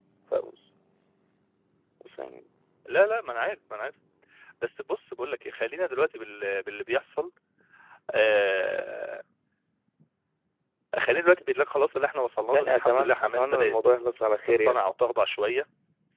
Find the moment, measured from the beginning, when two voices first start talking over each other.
12.5 s

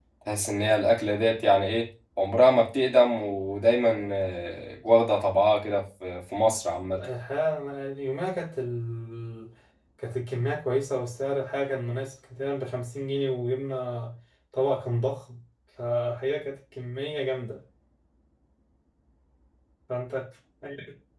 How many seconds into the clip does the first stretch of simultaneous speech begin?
none

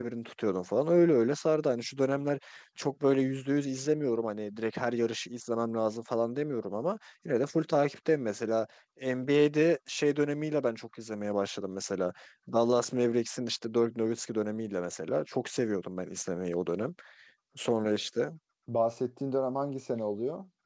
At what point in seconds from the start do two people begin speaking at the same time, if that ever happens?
none

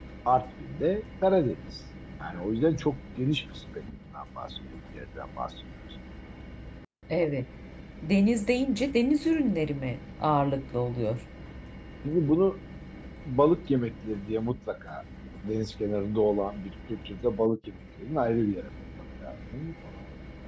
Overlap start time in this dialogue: none

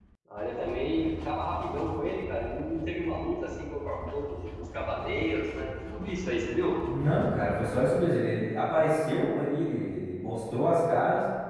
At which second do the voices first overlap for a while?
none

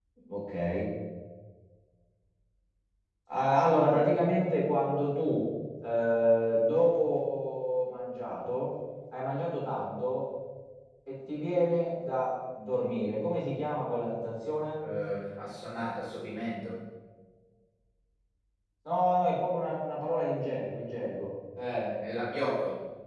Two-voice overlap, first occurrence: none

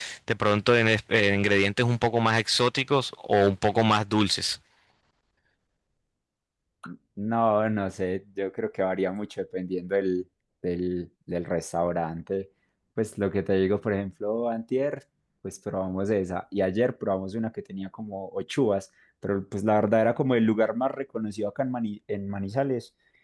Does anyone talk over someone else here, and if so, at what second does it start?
none

